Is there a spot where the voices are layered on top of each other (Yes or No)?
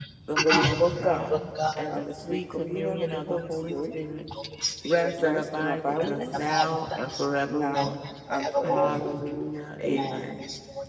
Yes